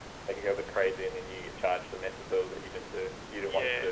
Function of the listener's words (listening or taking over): taking over